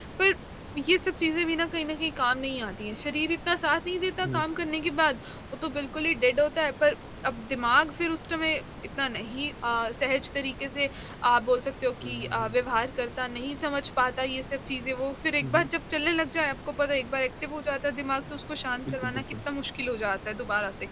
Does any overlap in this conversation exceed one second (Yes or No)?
No